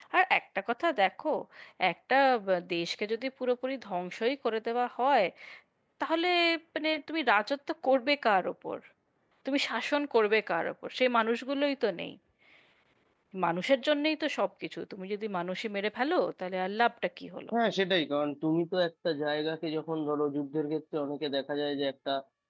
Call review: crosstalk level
none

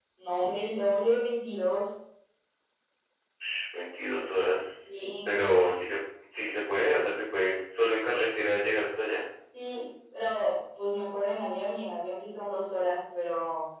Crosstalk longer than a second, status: none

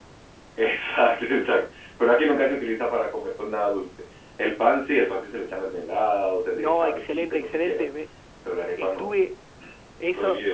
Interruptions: present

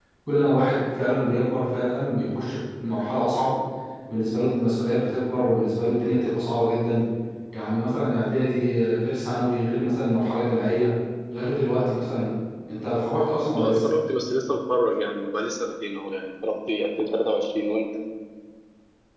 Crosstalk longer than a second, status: none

